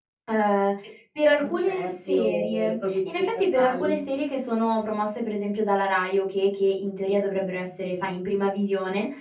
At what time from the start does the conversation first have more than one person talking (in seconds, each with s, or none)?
1.4 s